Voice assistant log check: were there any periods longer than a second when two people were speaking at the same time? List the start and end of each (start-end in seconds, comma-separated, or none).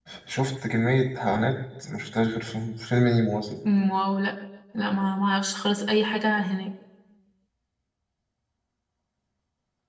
none